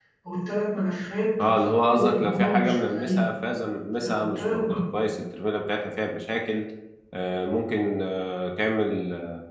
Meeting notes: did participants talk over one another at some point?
Yes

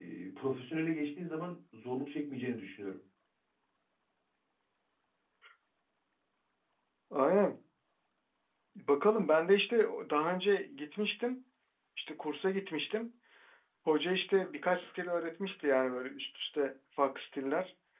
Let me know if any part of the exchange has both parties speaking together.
No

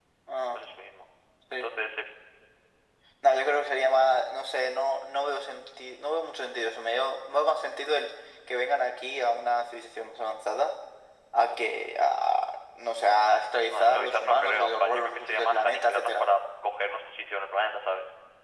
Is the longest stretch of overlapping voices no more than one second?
No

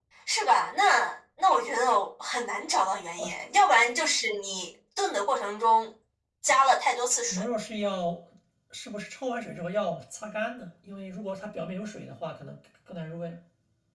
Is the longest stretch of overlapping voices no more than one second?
Yes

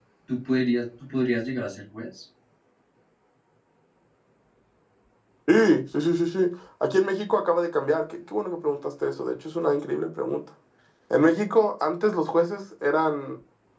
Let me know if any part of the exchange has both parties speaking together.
No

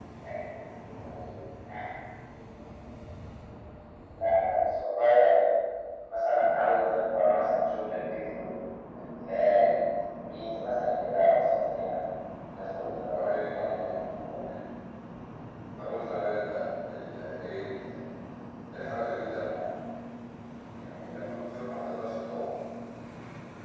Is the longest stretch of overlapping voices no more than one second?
No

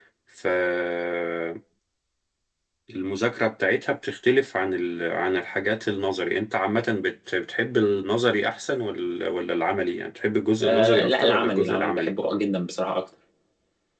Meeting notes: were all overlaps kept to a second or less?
No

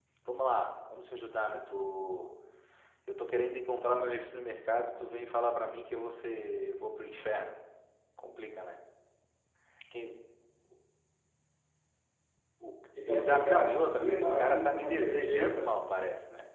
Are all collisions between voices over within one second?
No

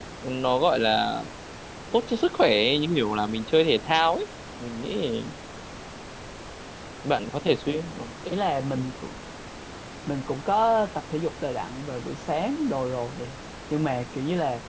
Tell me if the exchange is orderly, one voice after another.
Yes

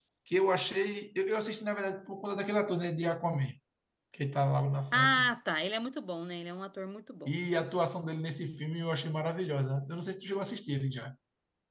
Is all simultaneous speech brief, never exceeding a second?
Yes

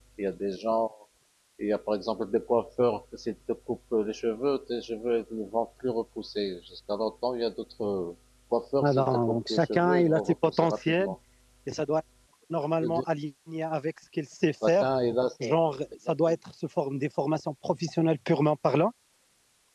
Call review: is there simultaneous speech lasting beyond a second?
Yes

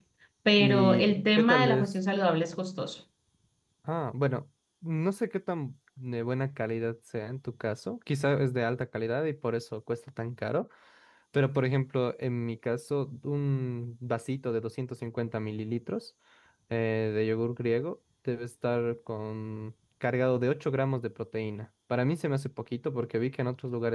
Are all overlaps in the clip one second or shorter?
No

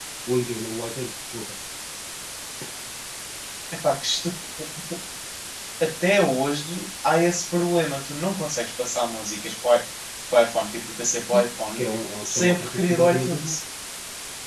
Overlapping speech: Yes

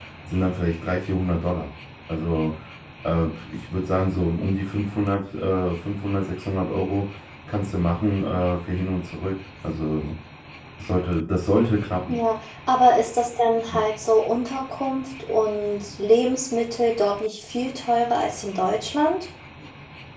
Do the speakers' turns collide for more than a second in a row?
No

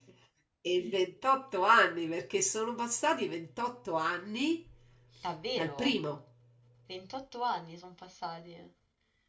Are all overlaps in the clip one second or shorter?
Yes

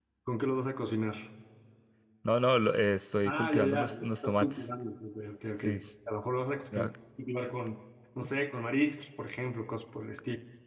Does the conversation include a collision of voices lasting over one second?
Yes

